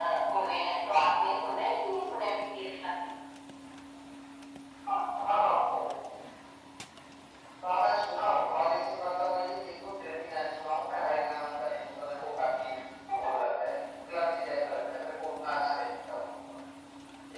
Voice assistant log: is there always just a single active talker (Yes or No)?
Yes